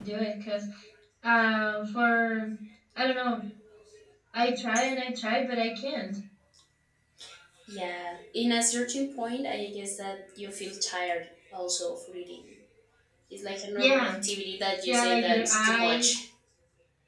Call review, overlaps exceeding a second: present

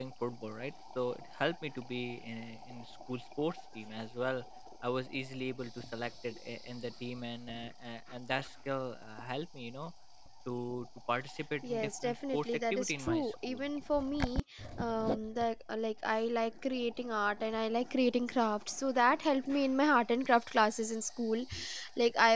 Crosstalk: present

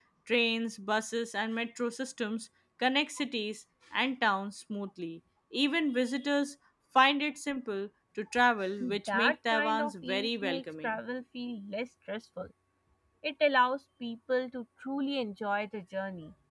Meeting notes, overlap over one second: present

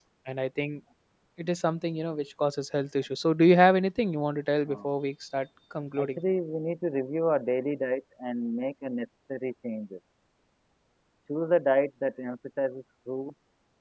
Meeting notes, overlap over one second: none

